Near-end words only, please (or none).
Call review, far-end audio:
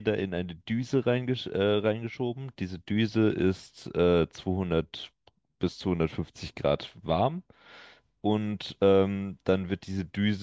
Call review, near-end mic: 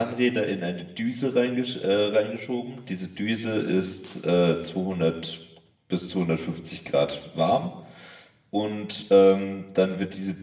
none